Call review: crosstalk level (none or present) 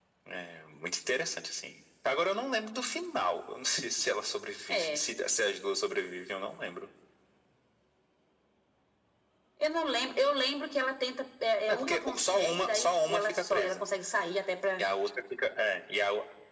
present